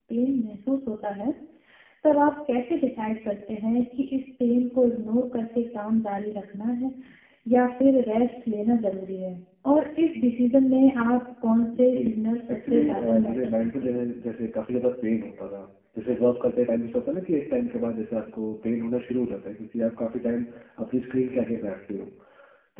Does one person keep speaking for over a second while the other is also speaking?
Yes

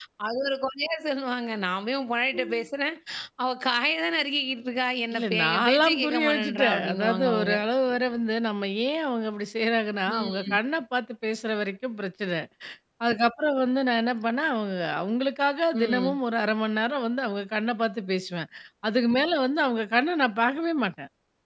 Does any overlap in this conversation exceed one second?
Yes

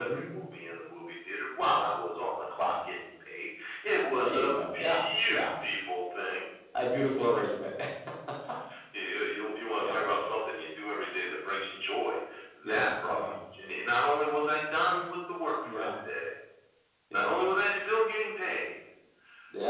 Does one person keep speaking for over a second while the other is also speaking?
Yes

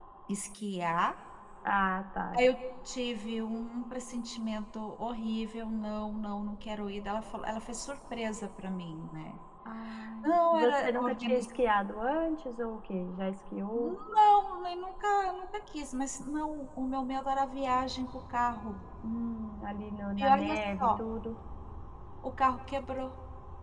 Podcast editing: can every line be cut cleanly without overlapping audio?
No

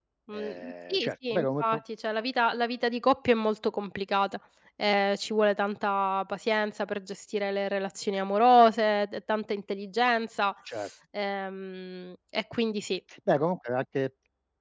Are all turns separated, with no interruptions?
No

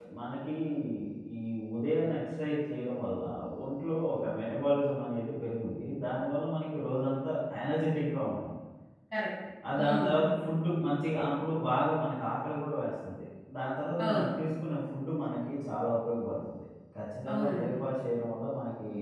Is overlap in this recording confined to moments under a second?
Yes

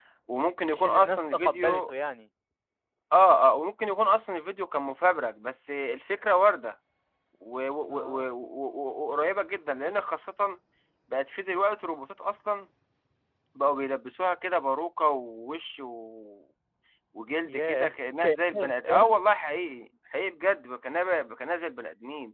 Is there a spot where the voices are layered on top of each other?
Yes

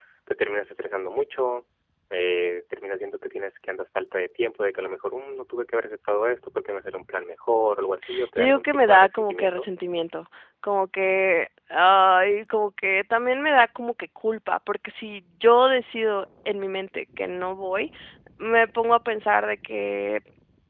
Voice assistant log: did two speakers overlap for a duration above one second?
Yes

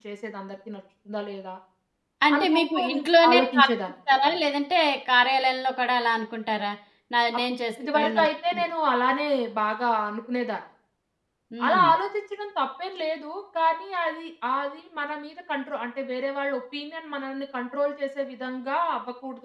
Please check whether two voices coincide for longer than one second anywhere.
Yes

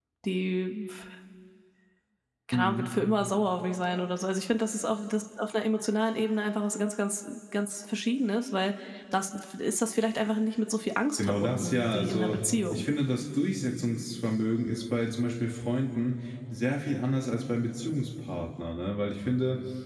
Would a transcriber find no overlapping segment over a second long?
No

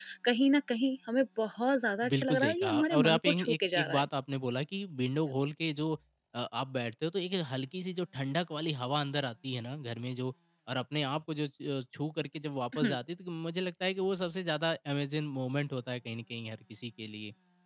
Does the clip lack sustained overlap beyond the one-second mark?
No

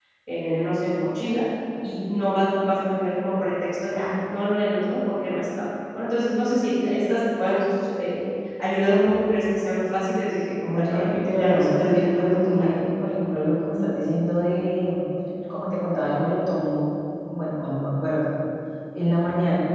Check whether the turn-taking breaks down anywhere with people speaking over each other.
Yes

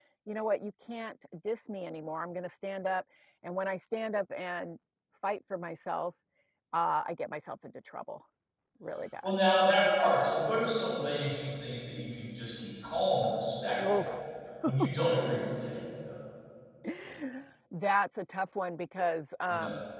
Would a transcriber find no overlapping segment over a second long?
Yes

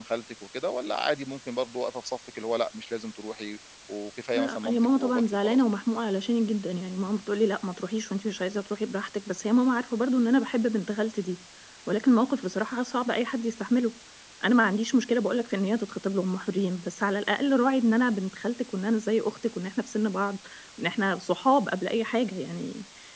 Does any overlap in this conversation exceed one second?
Yes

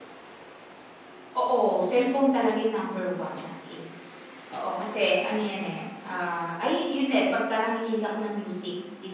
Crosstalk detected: No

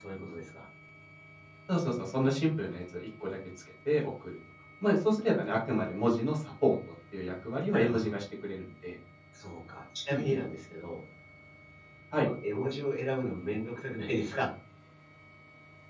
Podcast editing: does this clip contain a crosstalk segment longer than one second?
No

